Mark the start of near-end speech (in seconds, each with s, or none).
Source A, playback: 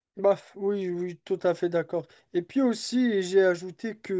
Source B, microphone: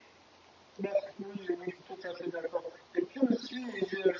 none